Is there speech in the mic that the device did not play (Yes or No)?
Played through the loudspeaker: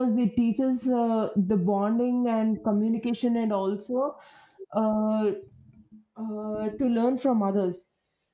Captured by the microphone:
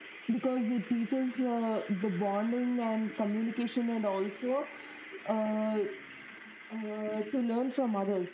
No